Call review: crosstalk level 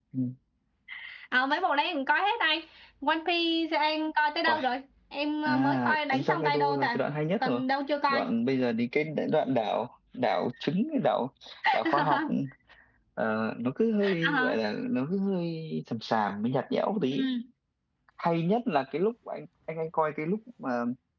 present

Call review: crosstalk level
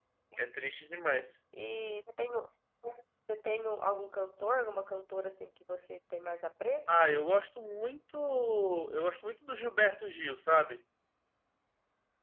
none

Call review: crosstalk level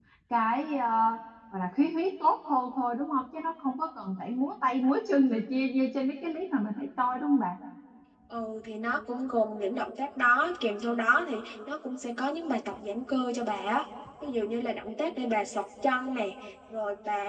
none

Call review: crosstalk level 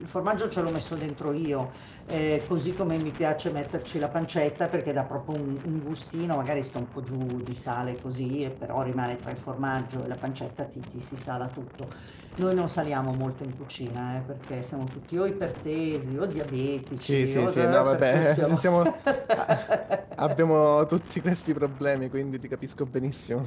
present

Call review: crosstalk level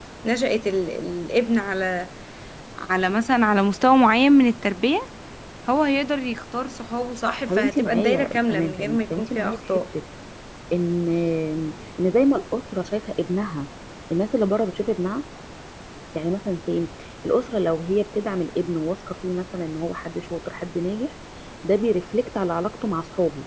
present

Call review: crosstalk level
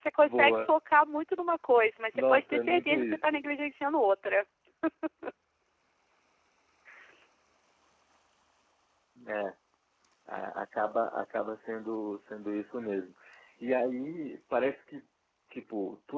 present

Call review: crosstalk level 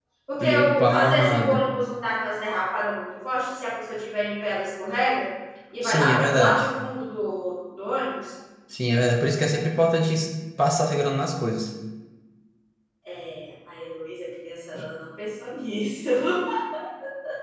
present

